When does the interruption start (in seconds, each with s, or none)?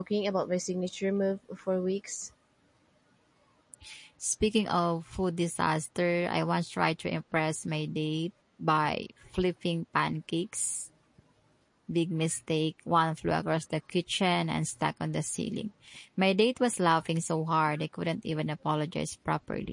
none